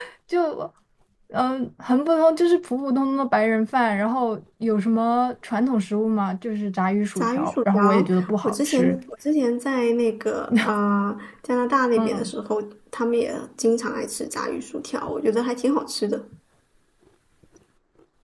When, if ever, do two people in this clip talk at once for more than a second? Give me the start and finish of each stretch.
7.2-9.0

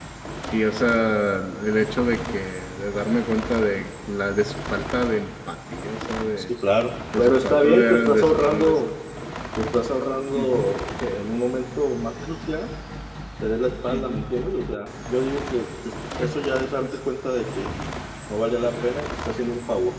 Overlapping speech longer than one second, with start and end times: 7.2-8.8

